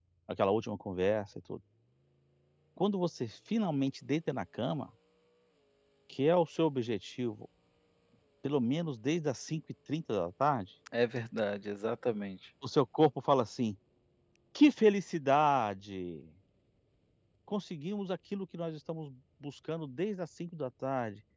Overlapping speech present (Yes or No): No